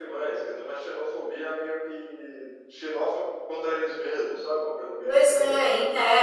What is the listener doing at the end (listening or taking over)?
taking over